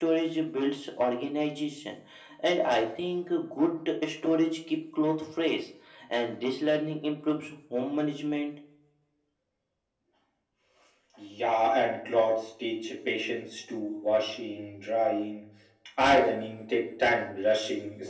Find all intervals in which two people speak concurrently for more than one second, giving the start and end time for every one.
none

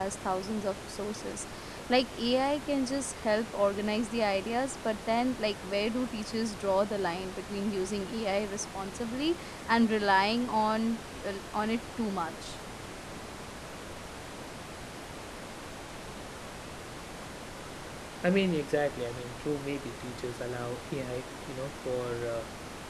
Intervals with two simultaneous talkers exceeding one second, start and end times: none

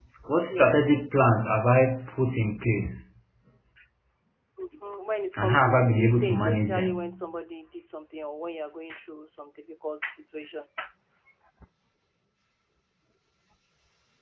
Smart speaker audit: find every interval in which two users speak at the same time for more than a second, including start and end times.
5.4-7.2

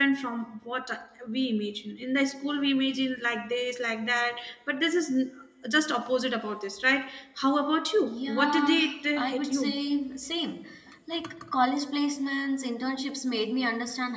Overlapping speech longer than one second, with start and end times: 8.1-9.8

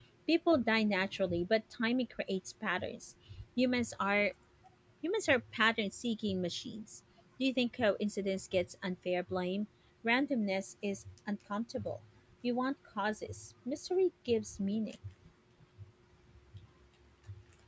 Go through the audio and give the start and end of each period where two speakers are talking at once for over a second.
none

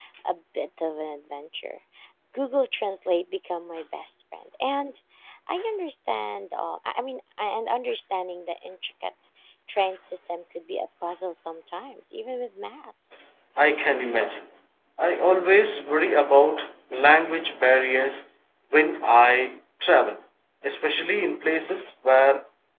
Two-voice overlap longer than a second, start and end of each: none

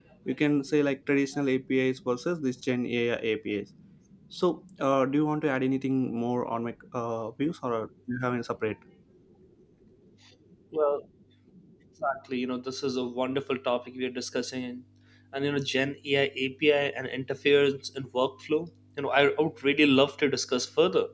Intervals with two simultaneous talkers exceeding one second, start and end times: none

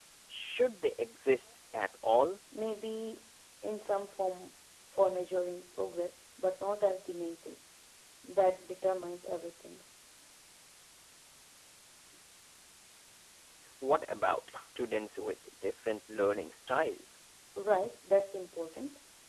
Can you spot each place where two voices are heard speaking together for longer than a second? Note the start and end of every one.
none

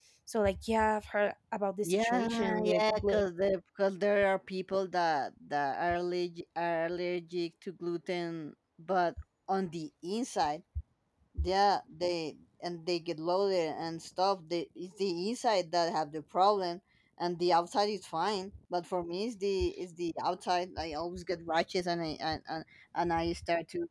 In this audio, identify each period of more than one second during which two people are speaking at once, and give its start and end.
1.8-3.2

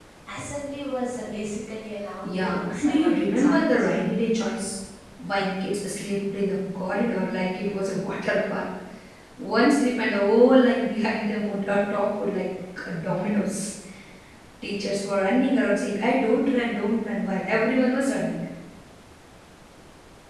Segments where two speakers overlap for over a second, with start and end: 2.2-3.9

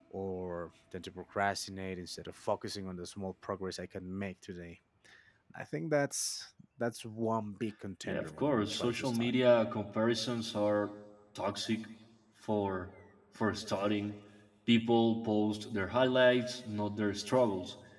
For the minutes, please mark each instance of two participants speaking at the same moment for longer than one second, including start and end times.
8.0-9.4

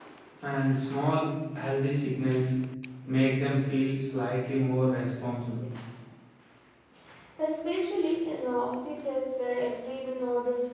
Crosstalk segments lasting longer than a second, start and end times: none

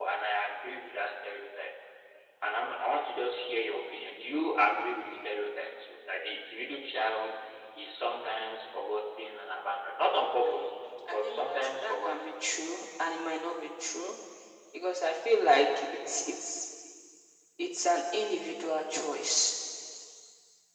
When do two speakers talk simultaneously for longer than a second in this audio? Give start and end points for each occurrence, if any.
11.1-12.3

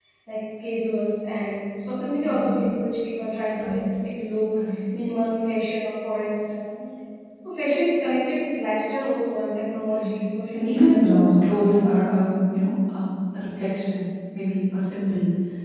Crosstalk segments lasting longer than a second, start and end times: 10.5-12.0

